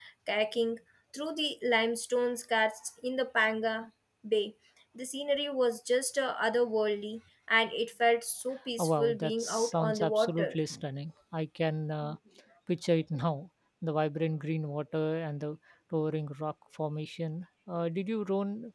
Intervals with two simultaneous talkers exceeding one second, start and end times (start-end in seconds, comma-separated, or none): 8.8-10.6